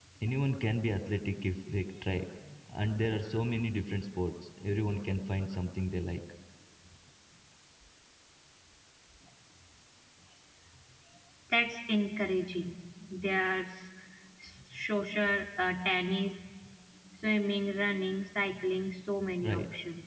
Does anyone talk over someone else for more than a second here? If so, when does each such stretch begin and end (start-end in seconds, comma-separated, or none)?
none